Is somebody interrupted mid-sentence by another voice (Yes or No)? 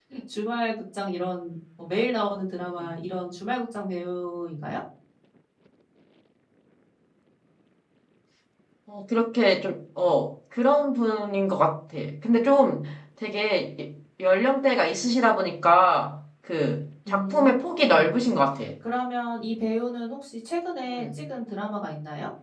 Yes